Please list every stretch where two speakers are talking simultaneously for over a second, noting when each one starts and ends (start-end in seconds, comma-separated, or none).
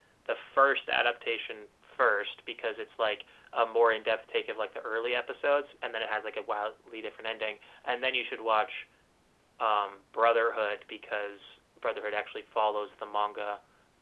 none